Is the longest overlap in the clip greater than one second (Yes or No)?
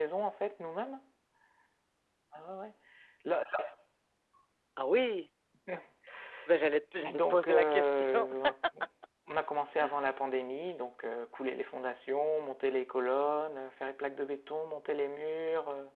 Yes